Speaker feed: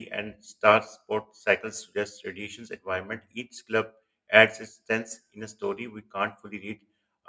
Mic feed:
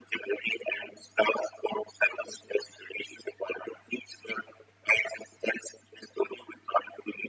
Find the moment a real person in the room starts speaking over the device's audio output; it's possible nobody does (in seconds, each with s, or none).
none